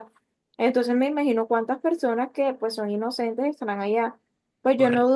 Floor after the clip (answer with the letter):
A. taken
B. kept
B